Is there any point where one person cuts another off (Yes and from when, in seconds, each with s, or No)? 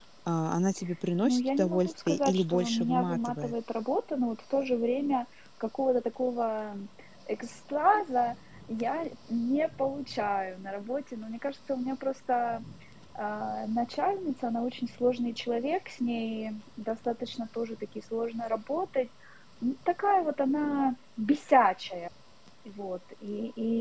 Yes, from 1.2 s